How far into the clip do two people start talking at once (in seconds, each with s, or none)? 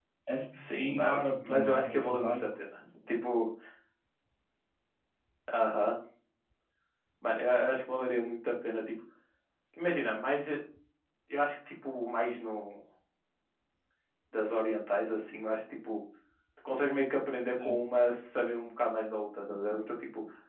0.5 s